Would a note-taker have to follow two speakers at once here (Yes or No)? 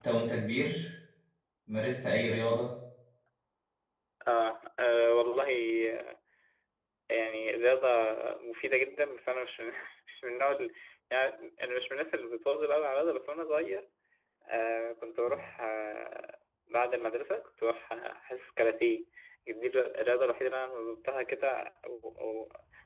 No